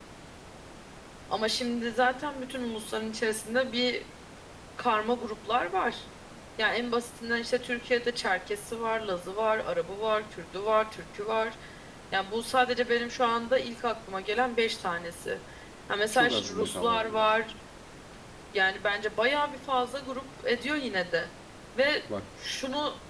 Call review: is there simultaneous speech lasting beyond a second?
Yes, from 16.1 s

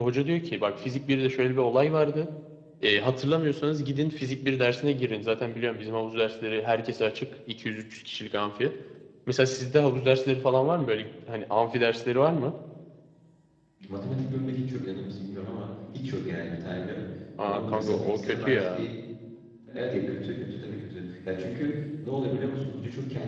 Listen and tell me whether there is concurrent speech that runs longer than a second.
Yes, from 17.4 s

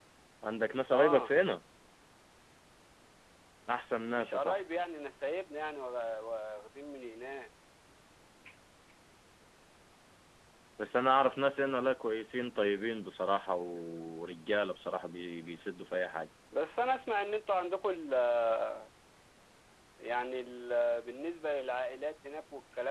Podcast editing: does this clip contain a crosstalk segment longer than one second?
No

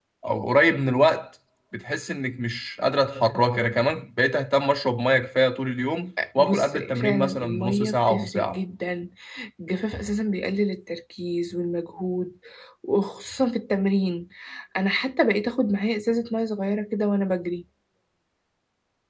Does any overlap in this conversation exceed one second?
Yes, from 6.2 s

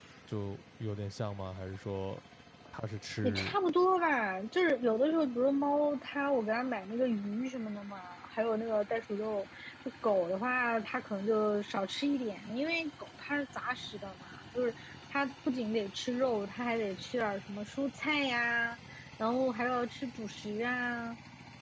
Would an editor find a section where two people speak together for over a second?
No

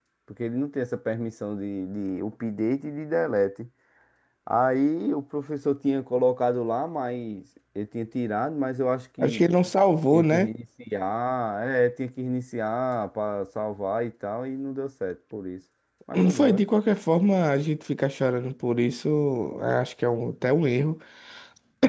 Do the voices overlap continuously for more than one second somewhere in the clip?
No

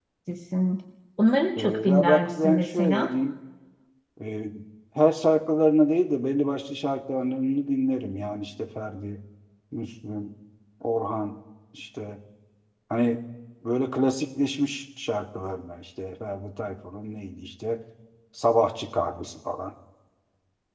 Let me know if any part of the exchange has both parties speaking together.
Yes, from 1.6 s

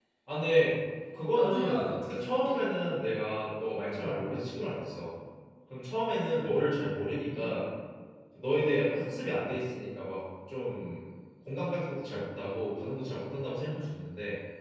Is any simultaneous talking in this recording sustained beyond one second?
Yes, from 1.3 s

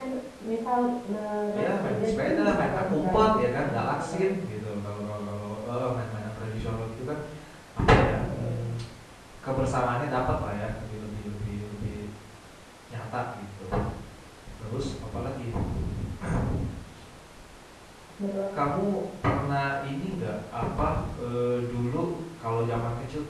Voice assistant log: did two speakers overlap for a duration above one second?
Yes, from 1.5 s

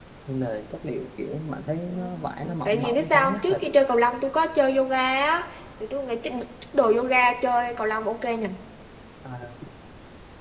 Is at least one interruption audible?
Yes, from 1.9 s

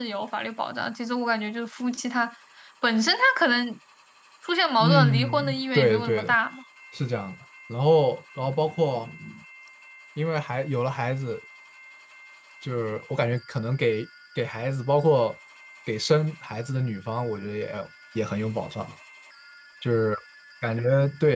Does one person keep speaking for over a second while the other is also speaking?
Yes, from 4.8 s

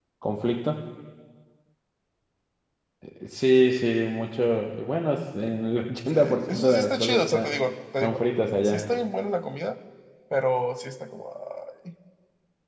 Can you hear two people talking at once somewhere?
Yes, from 6.1 s

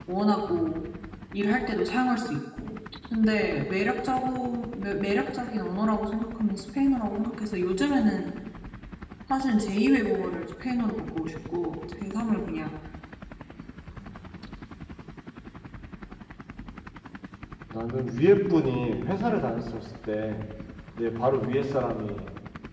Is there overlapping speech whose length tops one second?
No

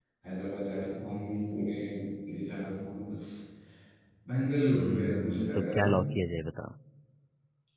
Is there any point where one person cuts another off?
Yes, from 4.7 s

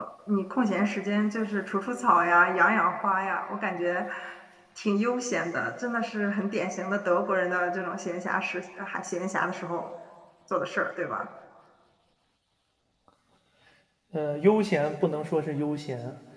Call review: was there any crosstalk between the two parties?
No

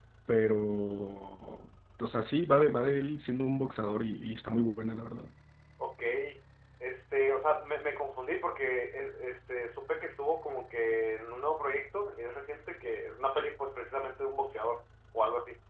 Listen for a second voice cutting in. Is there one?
No

